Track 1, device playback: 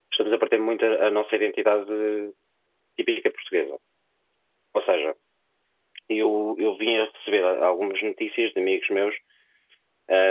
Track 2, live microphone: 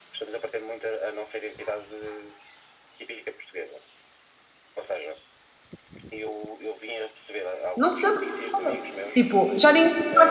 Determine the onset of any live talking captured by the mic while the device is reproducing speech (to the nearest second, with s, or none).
8 s